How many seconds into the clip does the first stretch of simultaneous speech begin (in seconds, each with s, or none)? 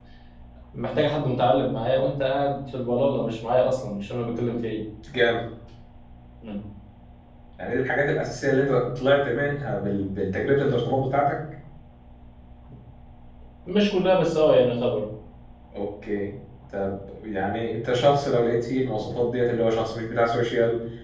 none